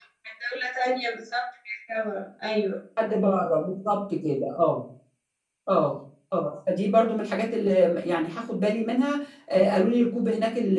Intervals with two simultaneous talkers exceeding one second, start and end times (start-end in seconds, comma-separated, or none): none